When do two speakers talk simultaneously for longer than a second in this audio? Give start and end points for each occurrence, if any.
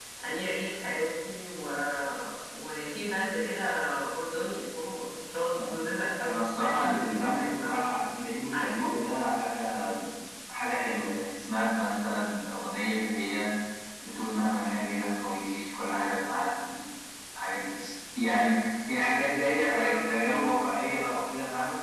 6.3-7.8

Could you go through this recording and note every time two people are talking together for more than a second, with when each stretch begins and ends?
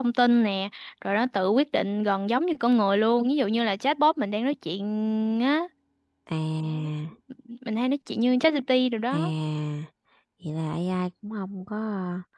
none

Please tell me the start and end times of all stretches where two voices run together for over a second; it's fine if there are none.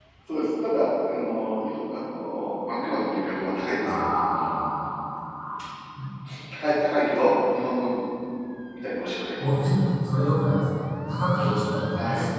none

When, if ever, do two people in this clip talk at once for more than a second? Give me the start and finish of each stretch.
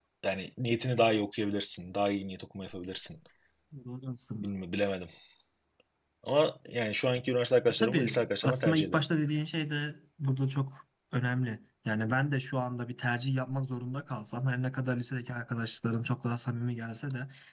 7.7-9.0

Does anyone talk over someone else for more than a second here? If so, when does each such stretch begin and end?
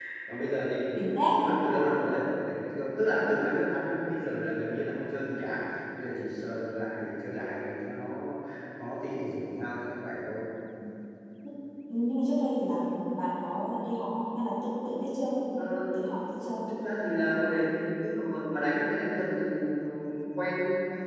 none

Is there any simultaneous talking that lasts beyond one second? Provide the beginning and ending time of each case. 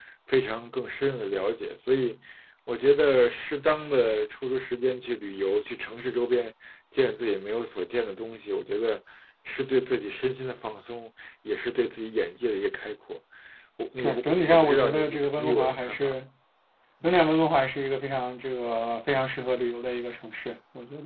14.0-16.1

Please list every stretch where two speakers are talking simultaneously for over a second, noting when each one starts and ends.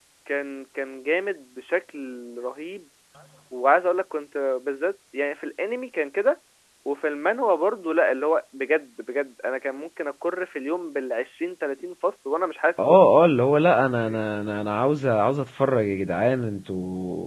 none

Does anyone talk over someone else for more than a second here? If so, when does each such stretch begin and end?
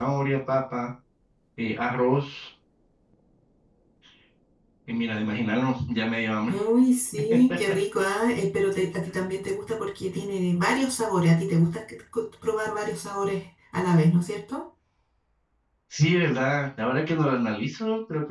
none

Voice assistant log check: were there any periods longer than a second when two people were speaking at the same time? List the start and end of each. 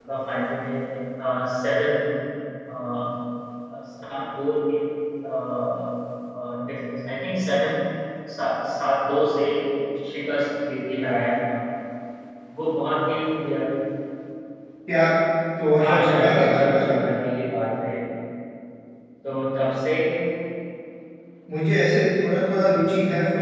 15.8-17.1

